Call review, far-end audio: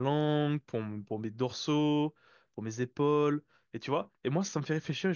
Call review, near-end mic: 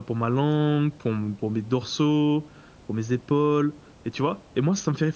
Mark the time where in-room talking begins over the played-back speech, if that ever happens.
none

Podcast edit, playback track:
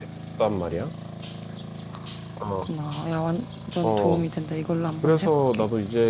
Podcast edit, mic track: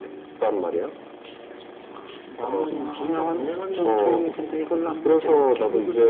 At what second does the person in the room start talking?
2.3 s

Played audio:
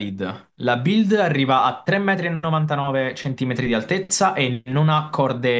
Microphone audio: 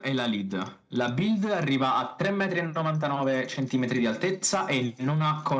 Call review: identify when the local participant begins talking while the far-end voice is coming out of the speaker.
none

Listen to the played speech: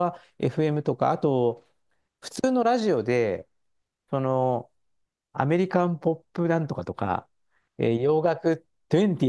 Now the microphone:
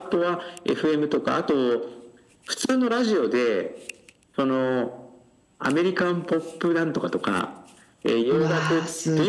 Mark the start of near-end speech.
8.3 s

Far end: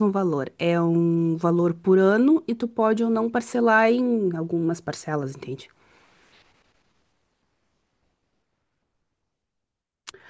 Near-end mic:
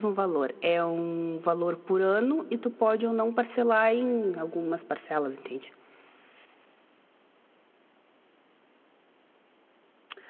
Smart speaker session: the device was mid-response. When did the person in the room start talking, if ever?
none

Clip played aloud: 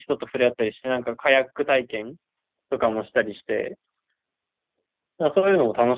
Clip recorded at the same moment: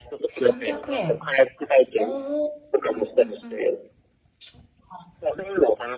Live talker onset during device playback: 0.3 s

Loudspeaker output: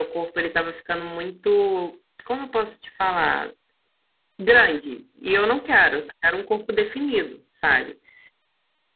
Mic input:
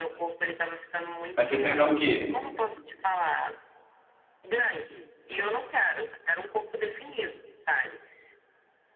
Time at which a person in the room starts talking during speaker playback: 1.4 s

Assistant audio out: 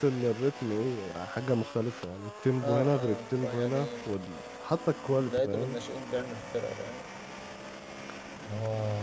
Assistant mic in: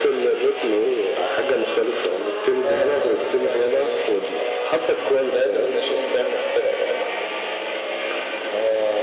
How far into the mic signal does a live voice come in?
none

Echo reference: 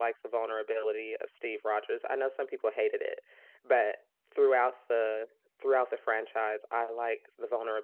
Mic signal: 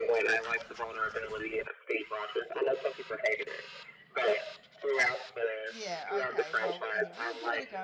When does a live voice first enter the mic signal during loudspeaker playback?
5.7 s

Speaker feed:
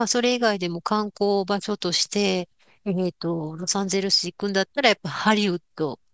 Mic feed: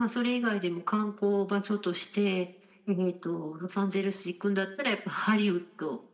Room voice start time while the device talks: none

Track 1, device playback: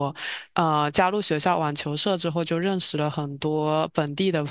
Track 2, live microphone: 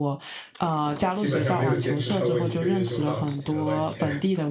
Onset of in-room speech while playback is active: 1.1 s

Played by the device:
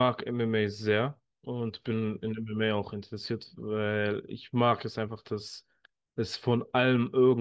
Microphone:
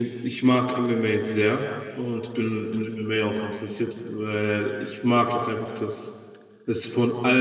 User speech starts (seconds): none

